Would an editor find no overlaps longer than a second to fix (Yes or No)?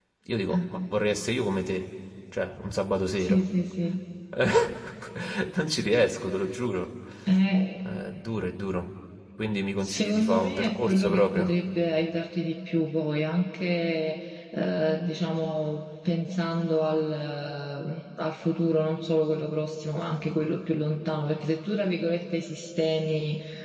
No